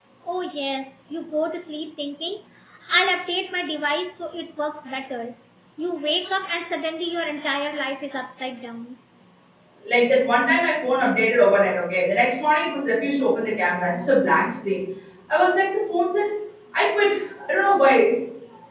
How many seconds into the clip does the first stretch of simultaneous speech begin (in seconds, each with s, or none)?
none